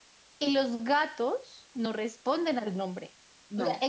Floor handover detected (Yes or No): No